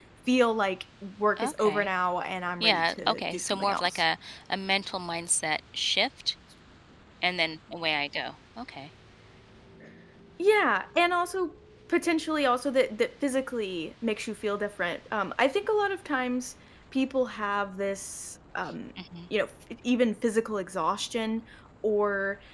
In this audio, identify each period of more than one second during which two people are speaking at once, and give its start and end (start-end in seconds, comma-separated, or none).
2.6-4.0